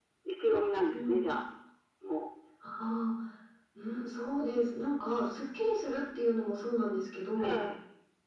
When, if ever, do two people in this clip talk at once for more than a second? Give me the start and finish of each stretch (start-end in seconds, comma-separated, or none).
none